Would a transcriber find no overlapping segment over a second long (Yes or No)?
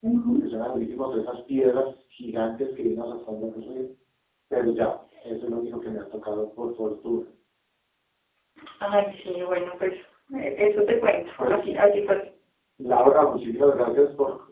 Yes